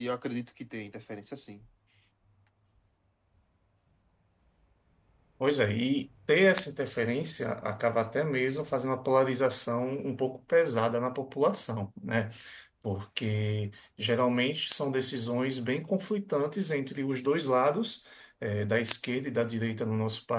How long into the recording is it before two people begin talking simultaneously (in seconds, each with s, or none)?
none